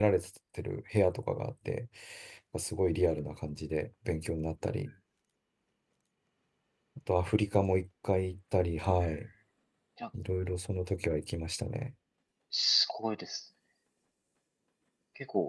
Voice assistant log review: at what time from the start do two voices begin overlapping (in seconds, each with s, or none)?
none